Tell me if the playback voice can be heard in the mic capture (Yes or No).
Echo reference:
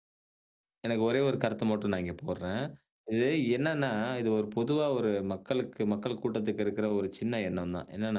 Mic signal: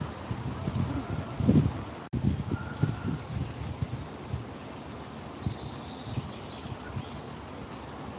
No